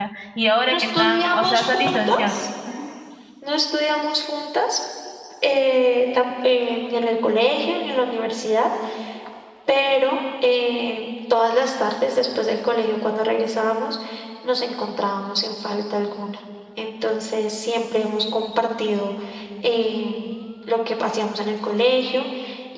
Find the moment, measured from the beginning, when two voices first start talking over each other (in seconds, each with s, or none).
0.7 s